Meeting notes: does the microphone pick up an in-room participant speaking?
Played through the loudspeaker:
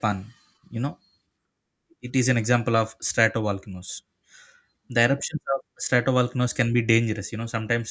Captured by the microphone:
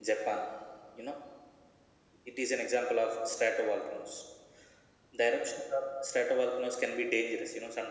No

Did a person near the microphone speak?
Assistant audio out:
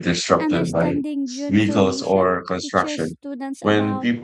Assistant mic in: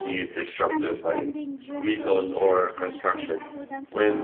Yes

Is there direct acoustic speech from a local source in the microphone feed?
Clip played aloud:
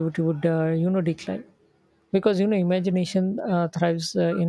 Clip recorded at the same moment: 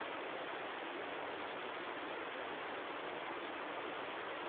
No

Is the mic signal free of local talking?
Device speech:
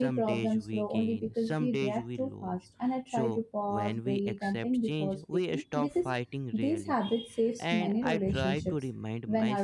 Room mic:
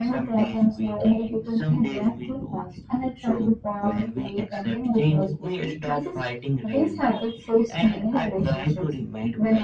Yes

